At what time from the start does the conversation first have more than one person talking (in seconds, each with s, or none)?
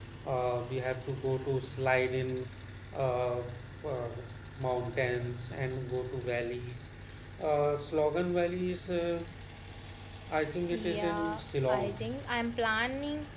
10.7 s